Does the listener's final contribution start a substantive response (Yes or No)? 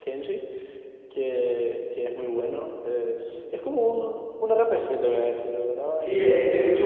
Yes